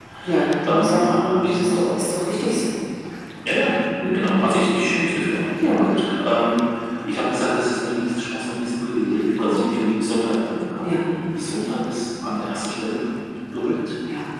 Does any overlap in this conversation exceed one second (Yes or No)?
Yes